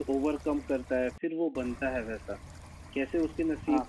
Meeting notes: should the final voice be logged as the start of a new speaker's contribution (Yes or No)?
No